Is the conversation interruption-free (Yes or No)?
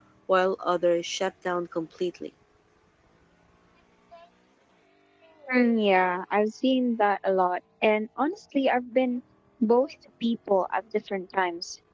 Yes